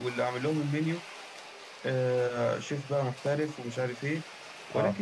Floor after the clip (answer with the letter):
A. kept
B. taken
A